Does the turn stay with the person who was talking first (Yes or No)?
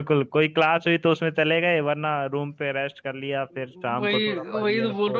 No